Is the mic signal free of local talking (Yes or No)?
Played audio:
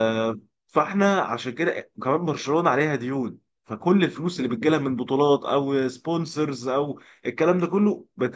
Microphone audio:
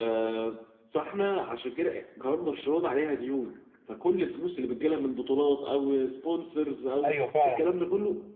No